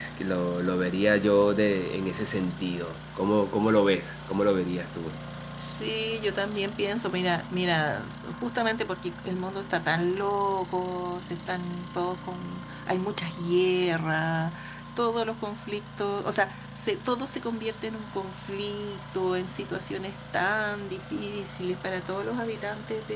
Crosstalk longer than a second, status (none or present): none